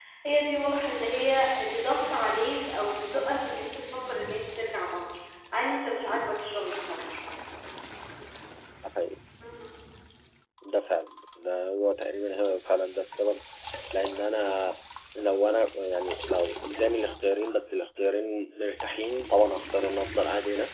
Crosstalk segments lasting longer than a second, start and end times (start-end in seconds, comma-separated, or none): none